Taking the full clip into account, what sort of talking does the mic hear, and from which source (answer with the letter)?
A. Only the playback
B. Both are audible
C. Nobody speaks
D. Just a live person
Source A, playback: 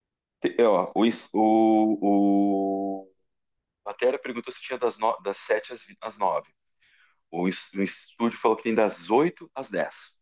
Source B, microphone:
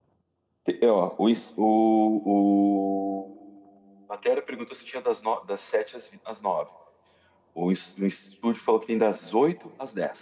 A